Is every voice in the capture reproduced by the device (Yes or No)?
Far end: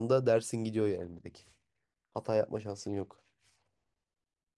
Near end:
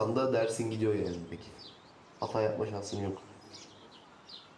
Yes